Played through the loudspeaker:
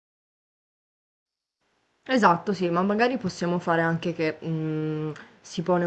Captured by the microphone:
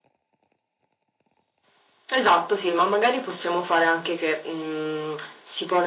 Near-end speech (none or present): none